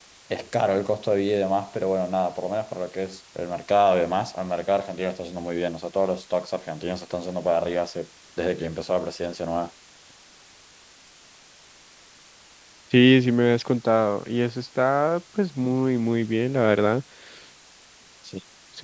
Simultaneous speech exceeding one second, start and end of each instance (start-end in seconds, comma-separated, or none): none